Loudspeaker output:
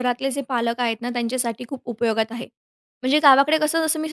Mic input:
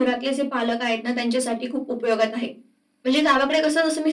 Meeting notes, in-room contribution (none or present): none